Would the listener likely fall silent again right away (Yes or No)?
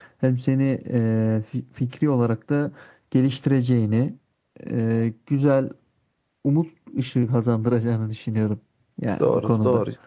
No